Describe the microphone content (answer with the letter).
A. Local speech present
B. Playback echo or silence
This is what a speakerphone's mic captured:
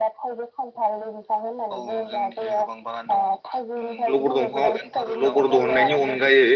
A